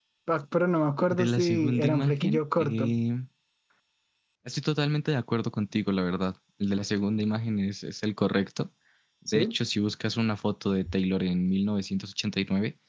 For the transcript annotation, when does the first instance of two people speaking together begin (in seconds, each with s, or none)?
1.1 s